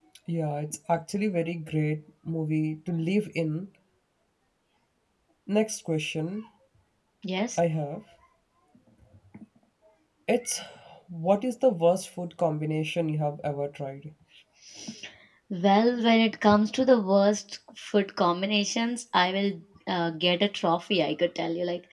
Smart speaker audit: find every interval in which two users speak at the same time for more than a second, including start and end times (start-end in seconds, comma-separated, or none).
none